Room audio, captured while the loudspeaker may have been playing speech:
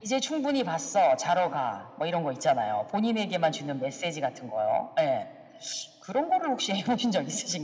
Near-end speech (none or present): none